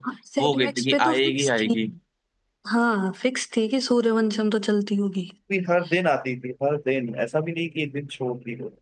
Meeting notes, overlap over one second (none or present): present